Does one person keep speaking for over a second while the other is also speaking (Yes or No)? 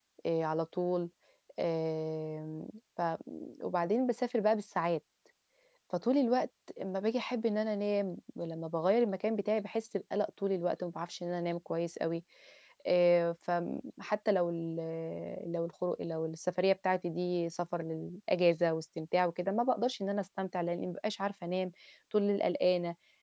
No